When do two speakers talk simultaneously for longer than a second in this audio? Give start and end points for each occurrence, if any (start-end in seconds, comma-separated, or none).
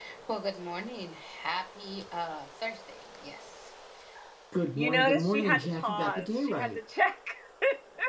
4.8-6.8